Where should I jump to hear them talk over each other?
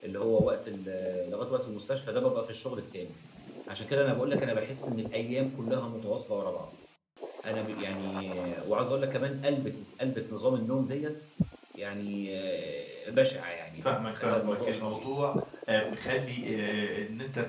13.8 s

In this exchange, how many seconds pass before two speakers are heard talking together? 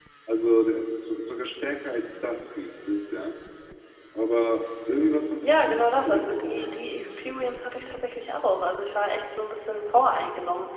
5.4 s

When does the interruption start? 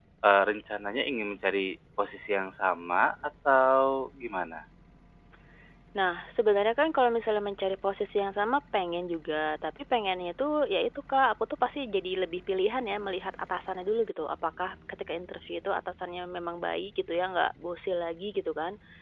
none

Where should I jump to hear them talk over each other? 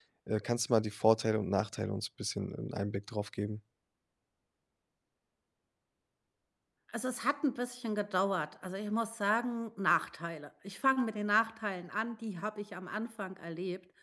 none

